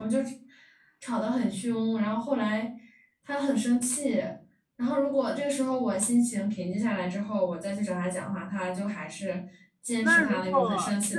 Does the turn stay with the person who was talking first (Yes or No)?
No